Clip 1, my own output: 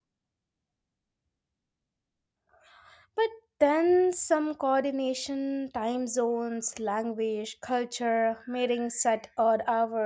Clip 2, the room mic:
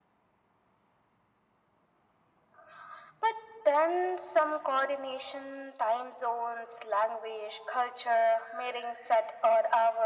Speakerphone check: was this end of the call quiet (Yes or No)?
Yes